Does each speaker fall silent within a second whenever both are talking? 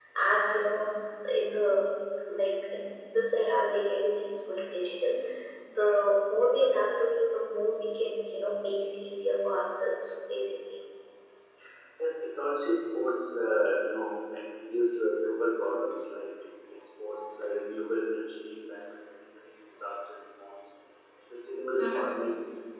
Yes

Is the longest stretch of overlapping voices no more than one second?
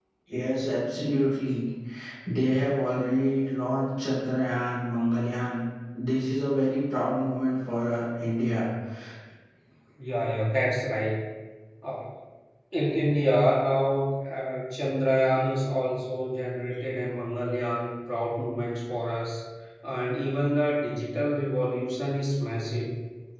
Yes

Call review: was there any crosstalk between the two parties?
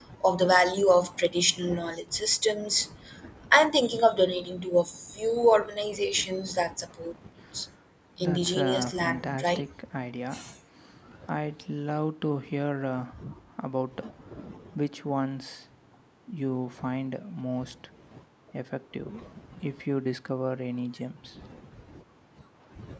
Yes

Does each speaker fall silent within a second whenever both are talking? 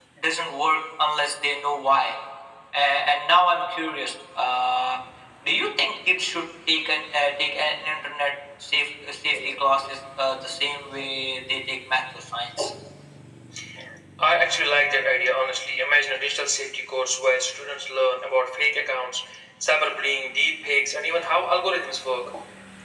Yes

